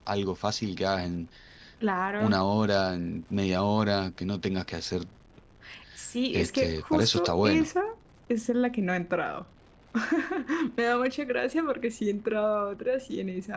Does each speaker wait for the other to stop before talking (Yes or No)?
No